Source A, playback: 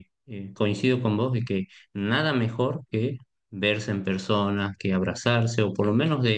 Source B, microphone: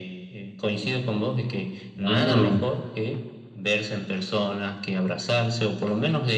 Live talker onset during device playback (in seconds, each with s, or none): 1.9 s